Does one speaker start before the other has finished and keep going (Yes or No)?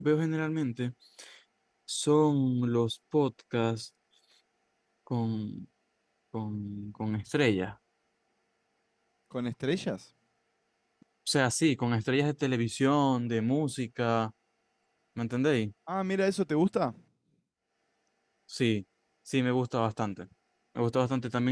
No